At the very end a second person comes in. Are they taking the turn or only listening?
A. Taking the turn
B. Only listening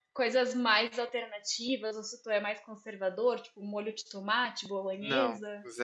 A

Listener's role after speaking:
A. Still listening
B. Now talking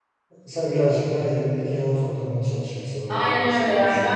B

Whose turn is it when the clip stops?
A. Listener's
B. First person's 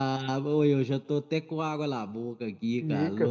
A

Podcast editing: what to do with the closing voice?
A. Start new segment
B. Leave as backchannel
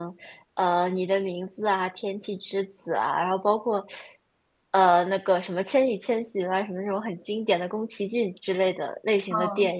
A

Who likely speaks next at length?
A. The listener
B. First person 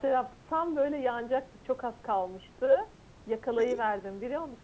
B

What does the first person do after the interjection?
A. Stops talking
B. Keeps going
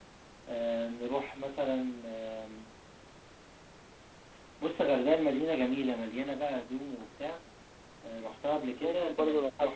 A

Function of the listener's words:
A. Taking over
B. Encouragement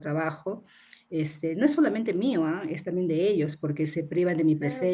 B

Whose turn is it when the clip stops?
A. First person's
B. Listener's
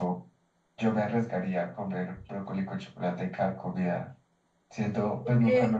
A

